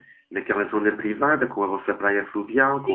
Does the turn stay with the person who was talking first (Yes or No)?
No